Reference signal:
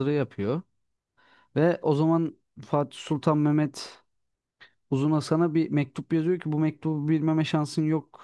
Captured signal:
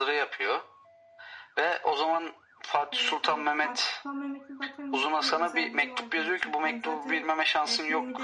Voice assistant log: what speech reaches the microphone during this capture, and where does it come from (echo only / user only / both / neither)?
both